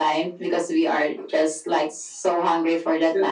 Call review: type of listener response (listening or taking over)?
listening